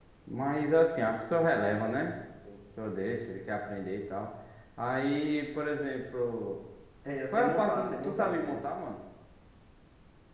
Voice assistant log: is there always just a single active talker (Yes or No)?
No